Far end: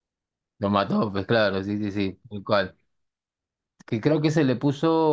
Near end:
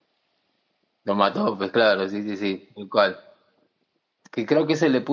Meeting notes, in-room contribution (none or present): none